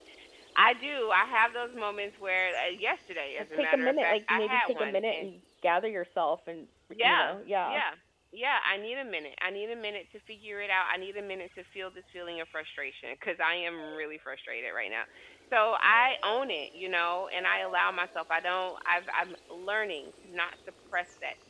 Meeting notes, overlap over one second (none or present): present